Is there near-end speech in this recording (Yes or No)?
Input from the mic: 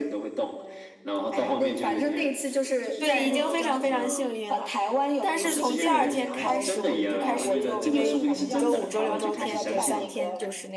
Yes